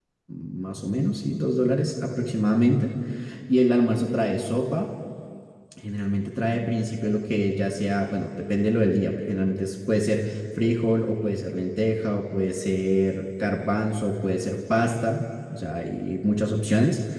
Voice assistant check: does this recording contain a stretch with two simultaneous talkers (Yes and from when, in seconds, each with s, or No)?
No